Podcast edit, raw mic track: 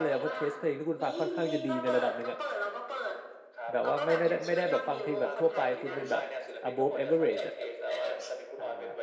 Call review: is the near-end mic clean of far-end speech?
No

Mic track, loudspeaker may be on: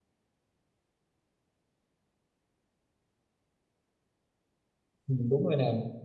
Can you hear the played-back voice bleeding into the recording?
No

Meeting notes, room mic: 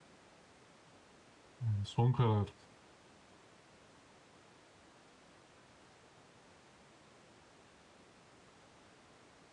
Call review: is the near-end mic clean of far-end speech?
Yes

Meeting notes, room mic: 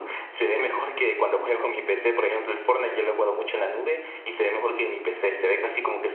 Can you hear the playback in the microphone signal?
Yes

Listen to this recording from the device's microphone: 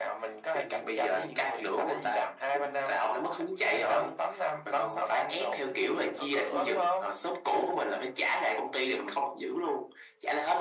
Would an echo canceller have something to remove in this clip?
Yes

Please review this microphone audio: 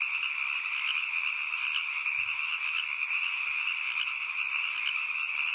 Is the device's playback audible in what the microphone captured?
No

